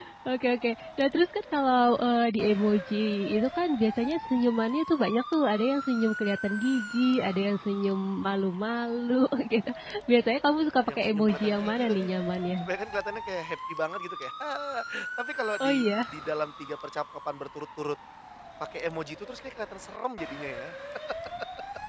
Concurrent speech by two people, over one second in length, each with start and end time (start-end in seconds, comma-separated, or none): 10.9-12.1